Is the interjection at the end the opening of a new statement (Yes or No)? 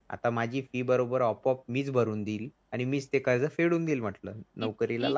Yes